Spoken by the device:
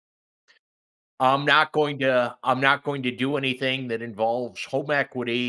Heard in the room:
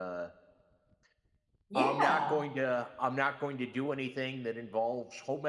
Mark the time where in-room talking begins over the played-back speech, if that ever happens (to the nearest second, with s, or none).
2 s